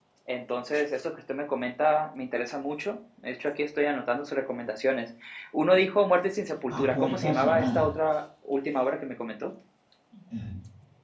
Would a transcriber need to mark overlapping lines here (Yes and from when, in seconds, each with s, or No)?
Yes, from 6.7 s